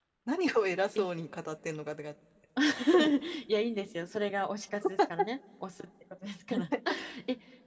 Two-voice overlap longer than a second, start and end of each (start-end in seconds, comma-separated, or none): none